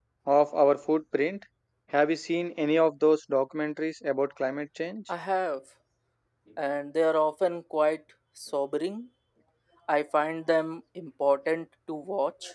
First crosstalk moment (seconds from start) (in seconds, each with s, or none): none